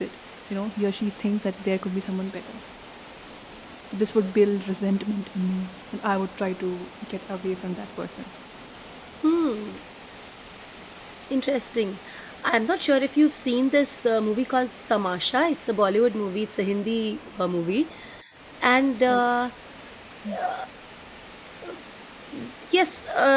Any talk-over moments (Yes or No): No